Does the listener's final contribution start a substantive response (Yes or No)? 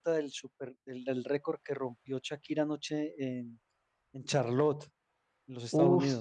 Yes